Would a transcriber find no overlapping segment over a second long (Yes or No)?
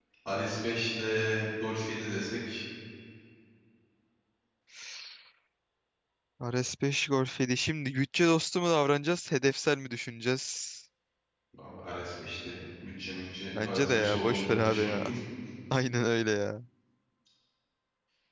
No